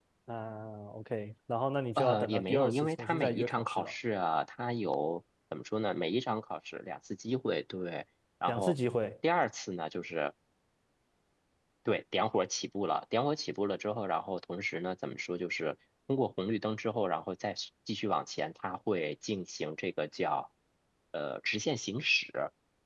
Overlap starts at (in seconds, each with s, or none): 2.0 s